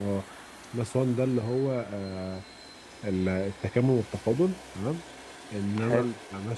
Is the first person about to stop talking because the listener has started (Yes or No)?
No